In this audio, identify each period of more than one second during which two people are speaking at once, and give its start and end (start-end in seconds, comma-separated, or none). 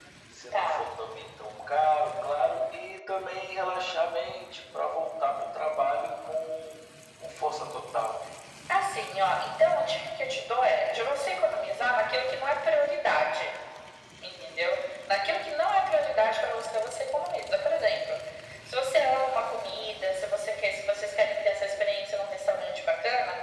none